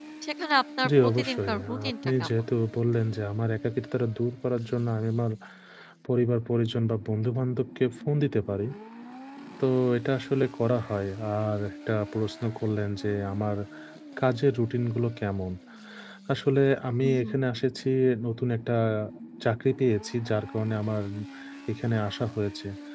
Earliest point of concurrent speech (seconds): 1 s

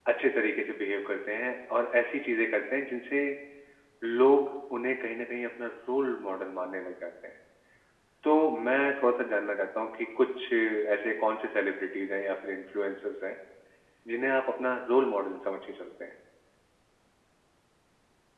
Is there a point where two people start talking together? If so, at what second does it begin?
none

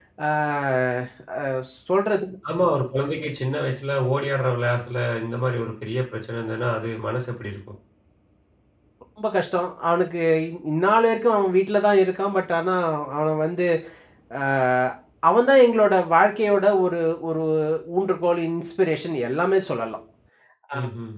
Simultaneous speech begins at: none

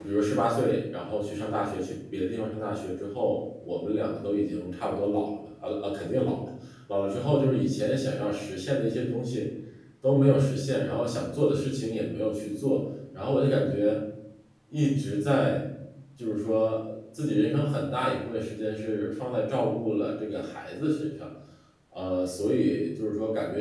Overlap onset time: none

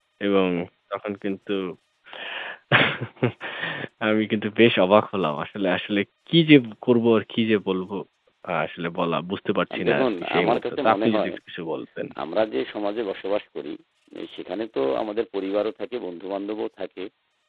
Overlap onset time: 10 s

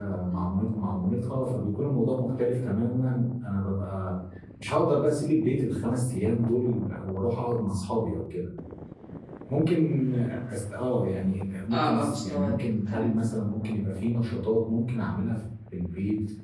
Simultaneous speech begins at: 12 s

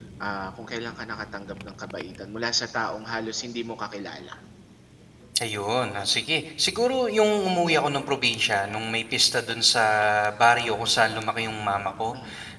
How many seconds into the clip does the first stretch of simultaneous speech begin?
none

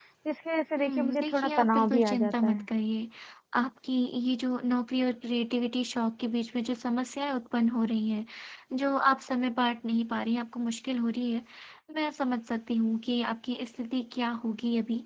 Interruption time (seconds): 1 s

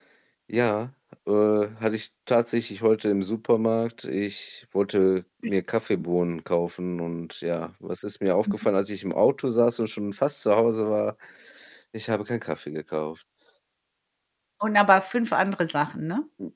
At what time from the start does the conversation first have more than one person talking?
none

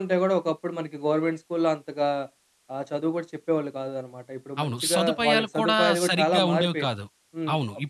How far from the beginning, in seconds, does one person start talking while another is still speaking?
5 s

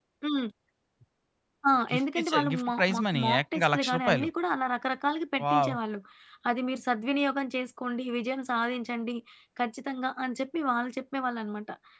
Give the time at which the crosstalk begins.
2 s

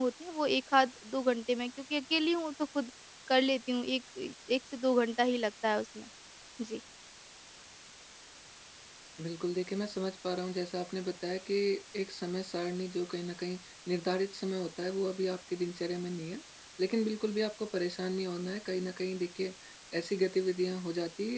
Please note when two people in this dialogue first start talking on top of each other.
none

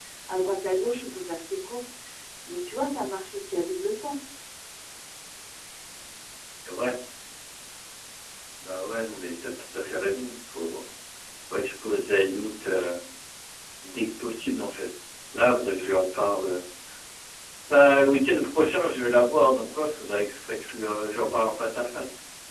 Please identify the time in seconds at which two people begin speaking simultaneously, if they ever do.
none

